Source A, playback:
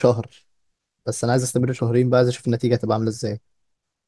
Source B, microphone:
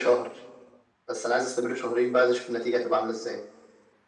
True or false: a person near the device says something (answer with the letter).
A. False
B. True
A